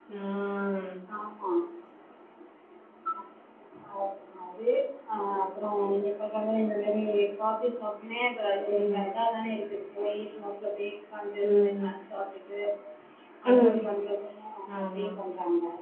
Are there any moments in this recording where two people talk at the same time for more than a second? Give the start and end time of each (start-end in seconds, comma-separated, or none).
none